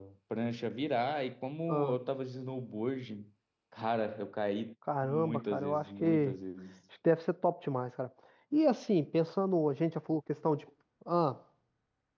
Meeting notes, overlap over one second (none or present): present